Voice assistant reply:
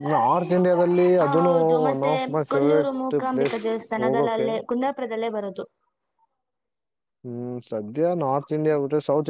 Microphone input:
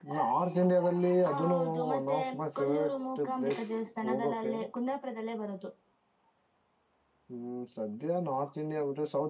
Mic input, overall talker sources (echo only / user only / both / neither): echo only